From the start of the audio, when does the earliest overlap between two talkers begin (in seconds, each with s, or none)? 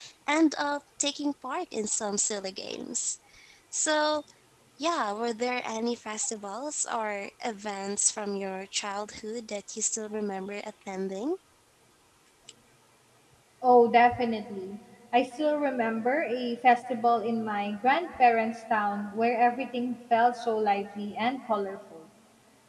none